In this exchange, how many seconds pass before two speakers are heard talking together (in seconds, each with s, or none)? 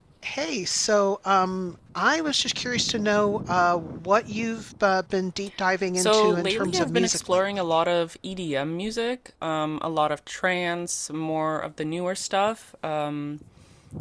6.0 s